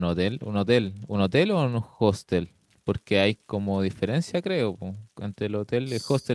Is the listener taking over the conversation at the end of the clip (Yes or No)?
No